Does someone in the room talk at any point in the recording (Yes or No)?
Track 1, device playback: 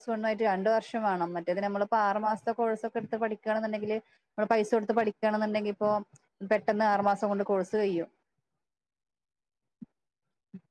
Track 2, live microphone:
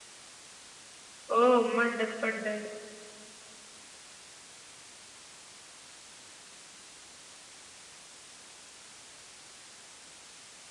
Yes